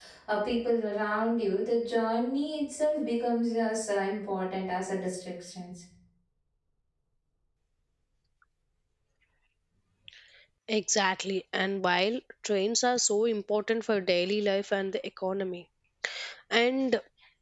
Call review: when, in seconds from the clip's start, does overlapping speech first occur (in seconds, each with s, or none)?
none